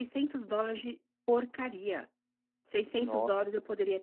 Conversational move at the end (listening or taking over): listening